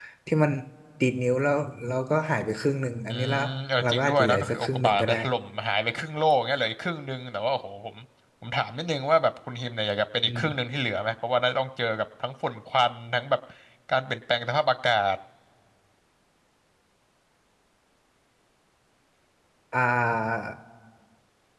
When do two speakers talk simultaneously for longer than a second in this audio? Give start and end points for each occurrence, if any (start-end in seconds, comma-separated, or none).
3.8-5.2